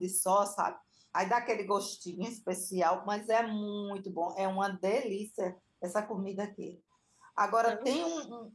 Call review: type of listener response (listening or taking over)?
listening